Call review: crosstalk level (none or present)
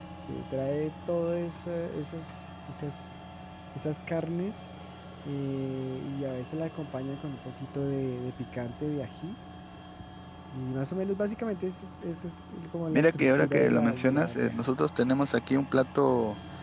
present